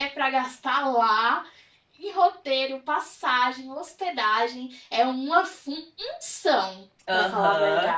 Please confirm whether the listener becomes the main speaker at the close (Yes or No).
Yes